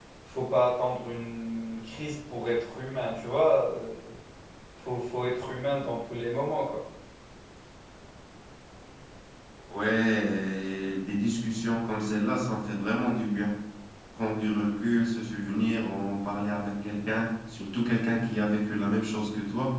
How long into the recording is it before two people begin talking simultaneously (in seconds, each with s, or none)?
none